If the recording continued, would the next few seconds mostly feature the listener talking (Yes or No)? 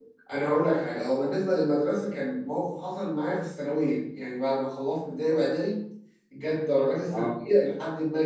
No